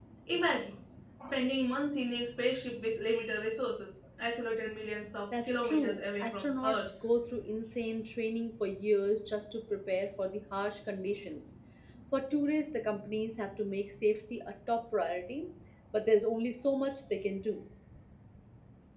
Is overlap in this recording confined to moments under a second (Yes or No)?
No